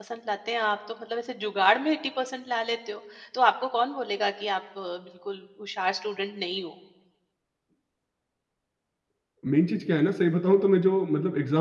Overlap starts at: none

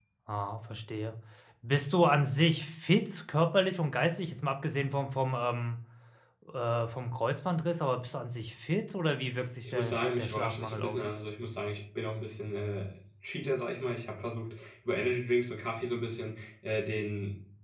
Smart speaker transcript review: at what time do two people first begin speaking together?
9.7 s

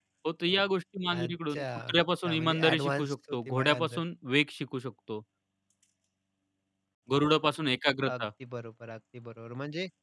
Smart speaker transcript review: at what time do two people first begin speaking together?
1.1 s

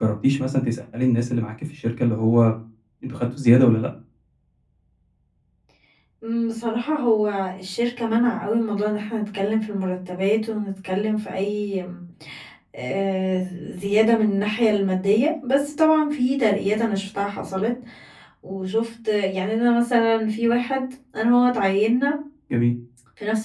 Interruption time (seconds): none

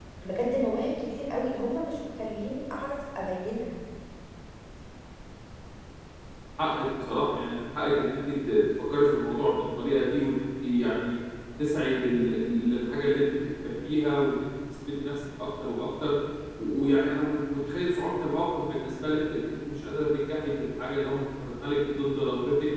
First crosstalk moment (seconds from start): none

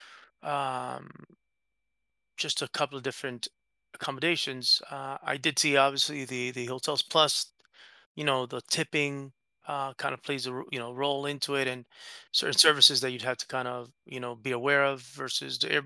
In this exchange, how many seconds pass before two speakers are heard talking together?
none

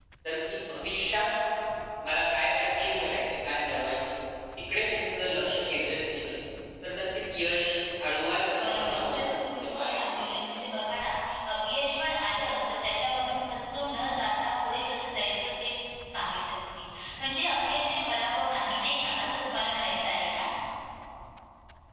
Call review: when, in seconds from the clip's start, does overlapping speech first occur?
8.5 s

